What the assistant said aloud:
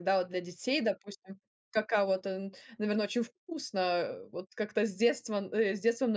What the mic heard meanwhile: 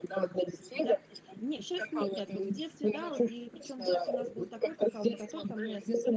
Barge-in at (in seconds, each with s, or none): 0.7 s